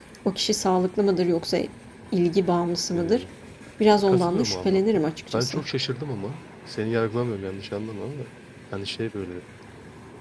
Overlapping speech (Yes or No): Yes